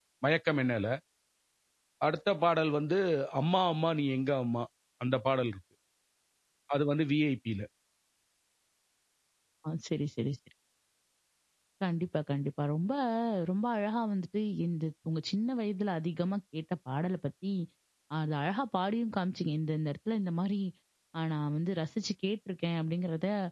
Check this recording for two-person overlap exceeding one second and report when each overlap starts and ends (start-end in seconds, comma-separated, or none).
none